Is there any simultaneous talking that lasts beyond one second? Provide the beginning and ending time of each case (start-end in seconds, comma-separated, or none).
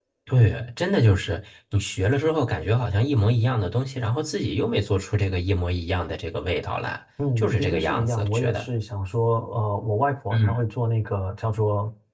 7.4-8.7